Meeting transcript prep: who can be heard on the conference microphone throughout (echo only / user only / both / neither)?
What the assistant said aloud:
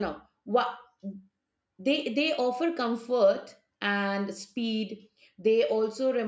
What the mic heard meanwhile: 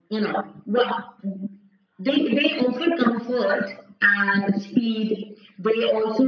echo only